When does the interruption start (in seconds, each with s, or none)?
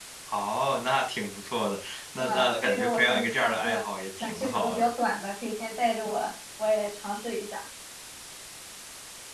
2.2 s